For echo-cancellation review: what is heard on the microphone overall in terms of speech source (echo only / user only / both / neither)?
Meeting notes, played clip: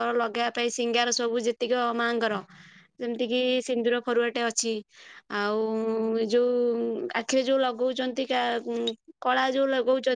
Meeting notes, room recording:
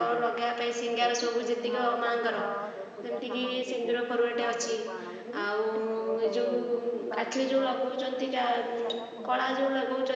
both